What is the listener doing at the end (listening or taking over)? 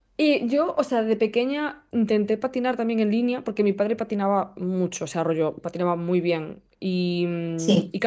listening